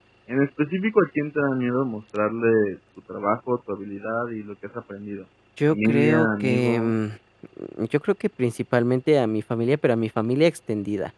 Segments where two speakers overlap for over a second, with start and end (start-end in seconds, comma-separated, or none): 5.7-6.9